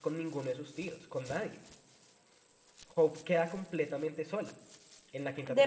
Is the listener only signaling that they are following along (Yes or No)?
No